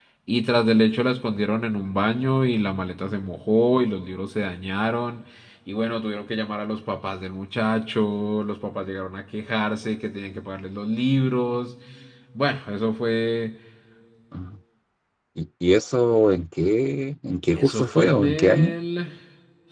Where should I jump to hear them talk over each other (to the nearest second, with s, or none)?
18 s